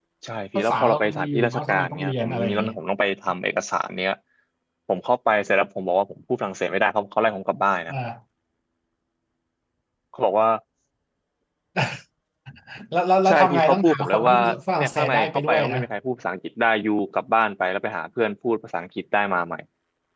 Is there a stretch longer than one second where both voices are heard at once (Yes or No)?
Yes